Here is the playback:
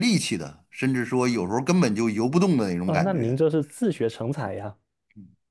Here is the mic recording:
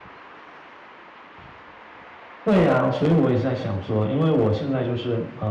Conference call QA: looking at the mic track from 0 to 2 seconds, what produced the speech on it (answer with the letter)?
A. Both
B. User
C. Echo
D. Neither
D